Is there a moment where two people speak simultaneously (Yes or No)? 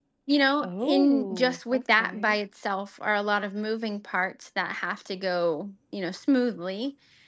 Yes